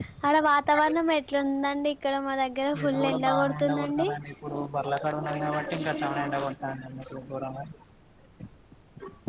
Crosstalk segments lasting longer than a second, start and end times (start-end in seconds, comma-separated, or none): 2.8-4.1